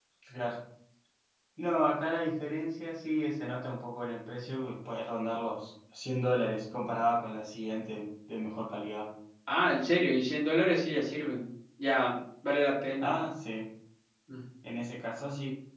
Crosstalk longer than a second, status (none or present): none